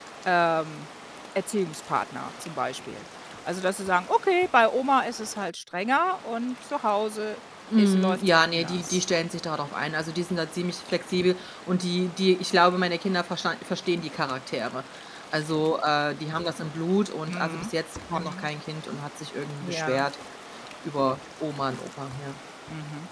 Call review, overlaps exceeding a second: present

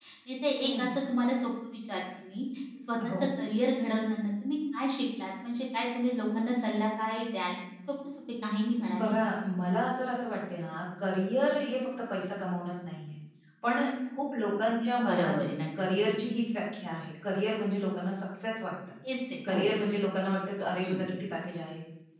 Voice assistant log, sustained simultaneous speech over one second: none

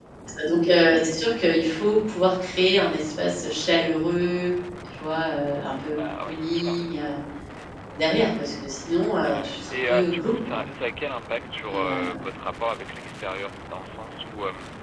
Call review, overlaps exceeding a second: present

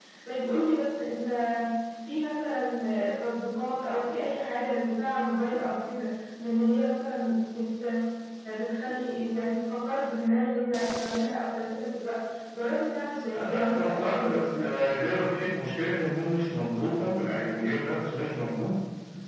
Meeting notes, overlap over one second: present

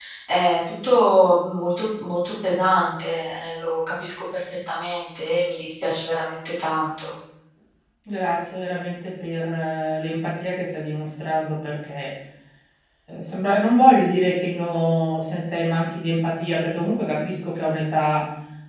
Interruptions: none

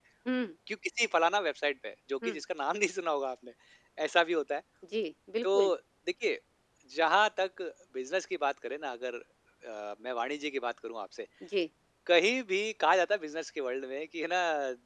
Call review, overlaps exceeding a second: none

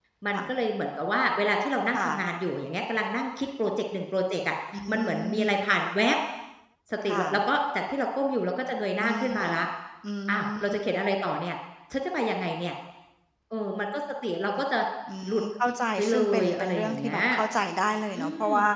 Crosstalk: present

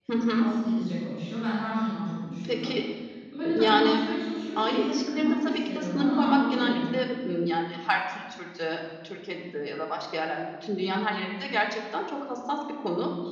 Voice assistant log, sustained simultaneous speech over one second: present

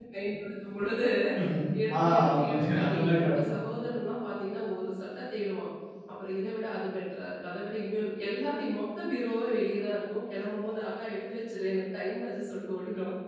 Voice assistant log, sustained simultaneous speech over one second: present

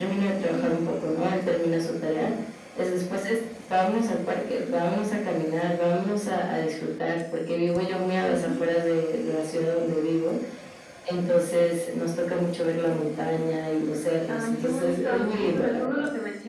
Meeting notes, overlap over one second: present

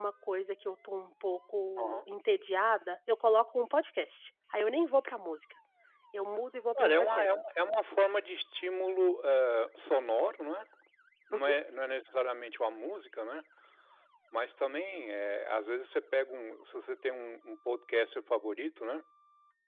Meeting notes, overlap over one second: none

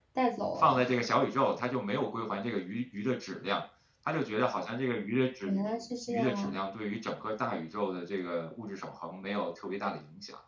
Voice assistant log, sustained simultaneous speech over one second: none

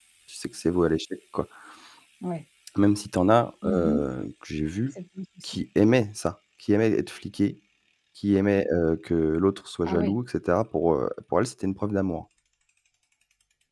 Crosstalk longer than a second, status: none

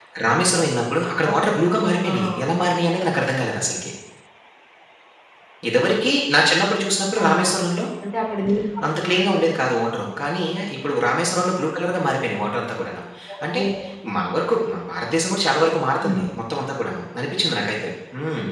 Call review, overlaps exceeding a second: none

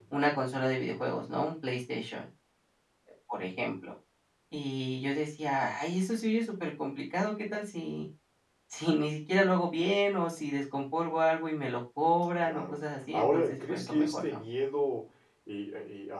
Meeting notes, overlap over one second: present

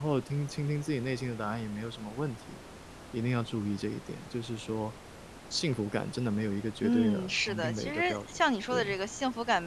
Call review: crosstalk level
present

